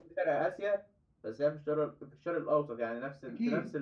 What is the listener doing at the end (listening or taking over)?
listening